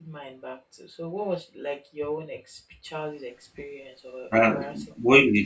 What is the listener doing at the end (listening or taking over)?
taking over